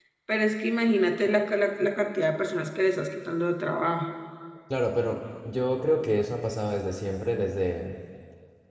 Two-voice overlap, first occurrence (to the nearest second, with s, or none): none